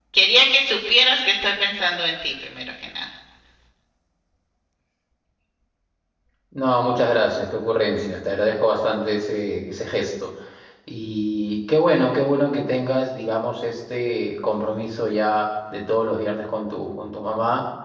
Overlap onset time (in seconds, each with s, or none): none